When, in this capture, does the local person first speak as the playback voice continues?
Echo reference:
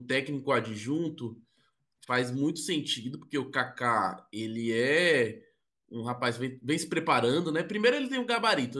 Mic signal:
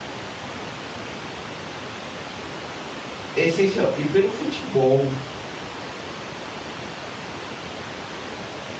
3 s

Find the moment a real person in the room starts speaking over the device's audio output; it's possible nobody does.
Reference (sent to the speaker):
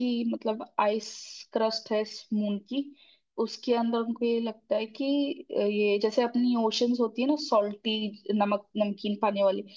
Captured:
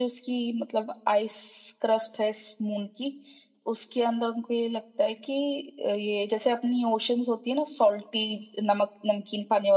none

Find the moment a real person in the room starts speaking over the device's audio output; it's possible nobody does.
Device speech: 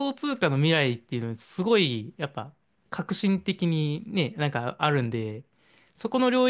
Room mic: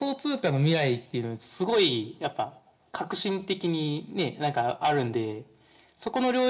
none

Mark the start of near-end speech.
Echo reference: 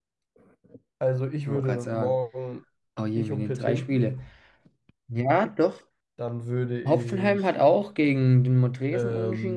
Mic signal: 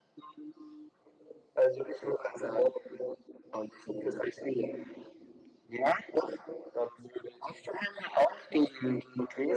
none

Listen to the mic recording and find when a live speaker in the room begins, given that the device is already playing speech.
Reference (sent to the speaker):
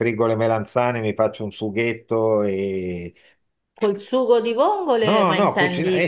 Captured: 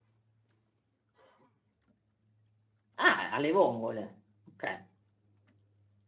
3 s

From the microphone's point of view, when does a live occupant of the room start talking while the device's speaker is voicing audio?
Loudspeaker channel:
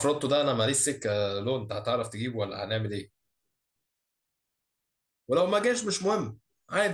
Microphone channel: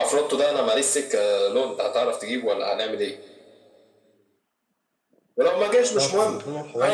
6 s

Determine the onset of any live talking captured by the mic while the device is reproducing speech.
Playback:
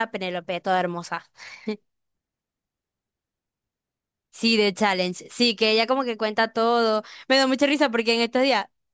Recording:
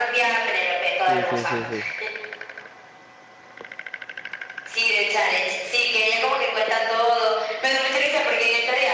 1 s

